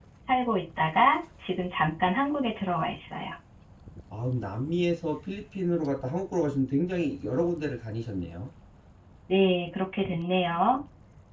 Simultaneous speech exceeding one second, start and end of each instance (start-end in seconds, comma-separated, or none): none